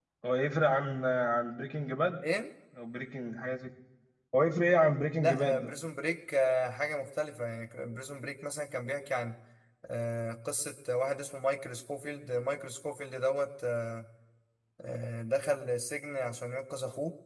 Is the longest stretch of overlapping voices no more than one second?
Yes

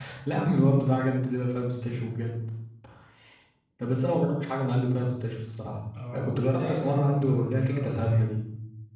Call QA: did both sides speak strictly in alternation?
No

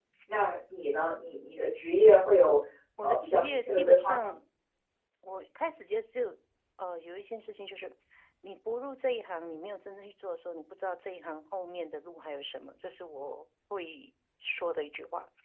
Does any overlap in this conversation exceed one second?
Yes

